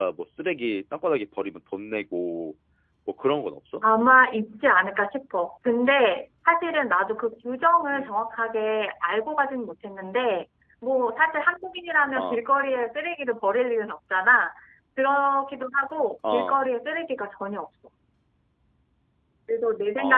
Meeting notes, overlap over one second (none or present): none